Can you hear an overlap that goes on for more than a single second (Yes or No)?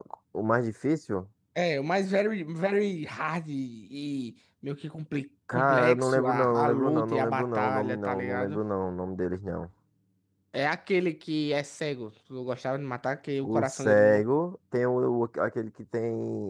Yes